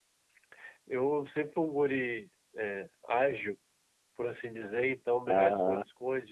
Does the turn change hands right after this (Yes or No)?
No